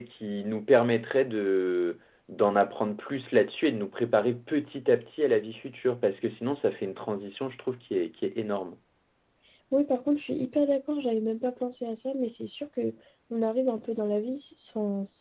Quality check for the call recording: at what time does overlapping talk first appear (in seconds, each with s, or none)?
none